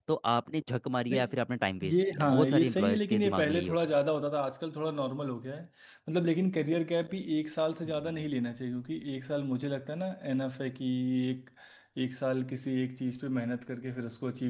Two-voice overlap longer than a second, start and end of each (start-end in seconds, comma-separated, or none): 1.9-3.9